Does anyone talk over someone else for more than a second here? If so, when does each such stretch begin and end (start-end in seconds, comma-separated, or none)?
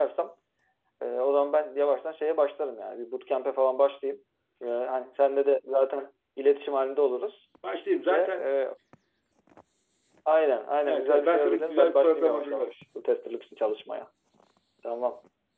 10.8-12.7